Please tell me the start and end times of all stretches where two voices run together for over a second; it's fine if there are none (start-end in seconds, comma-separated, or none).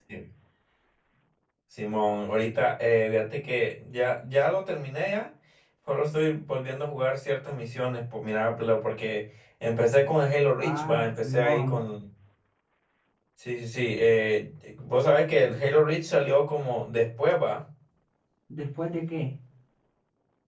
10.6-11.8